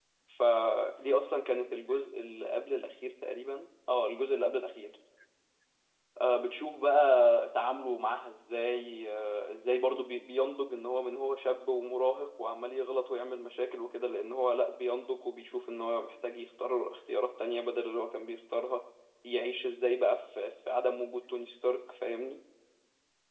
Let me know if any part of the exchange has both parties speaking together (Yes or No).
No